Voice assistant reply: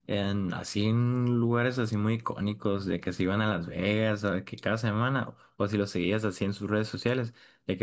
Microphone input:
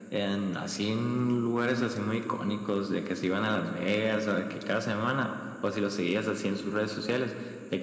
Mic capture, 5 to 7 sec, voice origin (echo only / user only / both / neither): echo only